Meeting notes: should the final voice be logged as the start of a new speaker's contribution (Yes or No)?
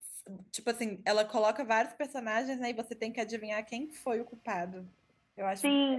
Yes